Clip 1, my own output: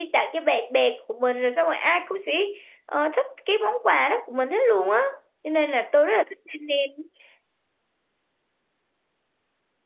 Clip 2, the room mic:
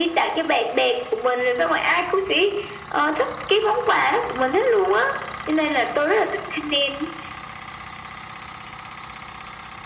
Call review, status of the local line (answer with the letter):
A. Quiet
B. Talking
A